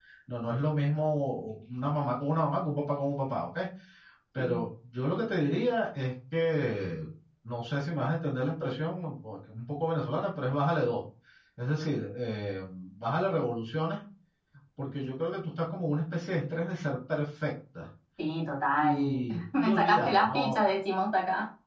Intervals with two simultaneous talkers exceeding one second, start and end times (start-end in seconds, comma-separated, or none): 18.8-20.6